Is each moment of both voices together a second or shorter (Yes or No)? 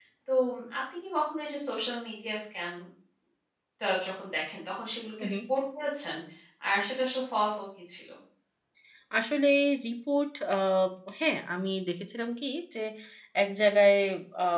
Yes